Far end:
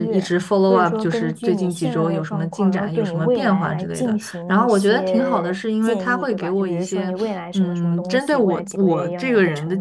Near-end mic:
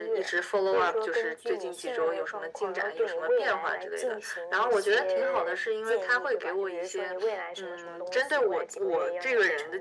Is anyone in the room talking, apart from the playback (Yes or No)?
No